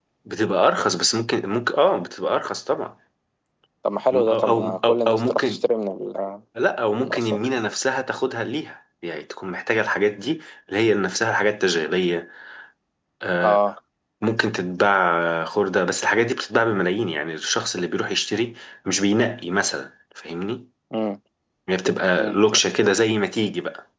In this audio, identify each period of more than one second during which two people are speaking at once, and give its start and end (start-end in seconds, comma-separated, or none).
4.1-5.6